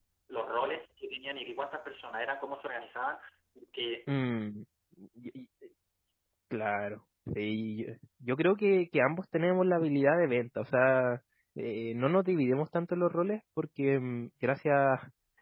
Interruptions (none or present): none